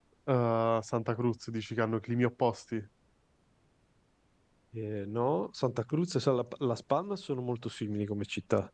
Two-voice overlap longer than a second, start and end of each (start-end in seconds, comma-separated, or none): none